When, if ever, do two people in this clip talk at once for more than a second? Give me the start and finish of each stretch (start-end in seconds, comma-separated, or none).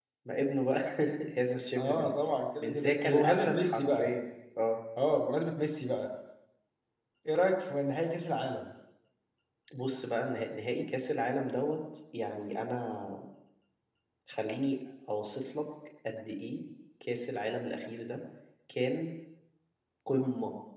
2.6-4.1